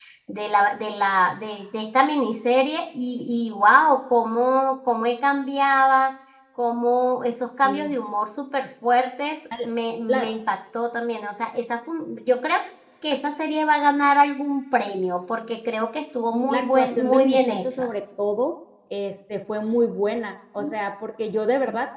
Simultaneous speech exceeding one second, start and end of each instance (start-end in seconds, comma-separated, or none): 16.5-17.9